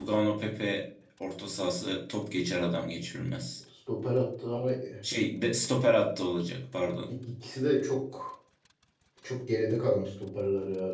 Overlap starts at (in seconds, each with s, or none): none